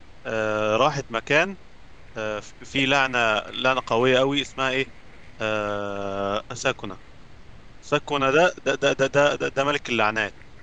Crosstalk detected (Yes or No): No